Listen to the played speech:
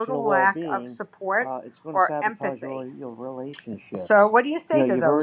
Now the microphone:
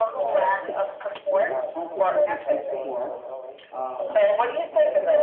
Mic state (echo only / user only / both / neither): both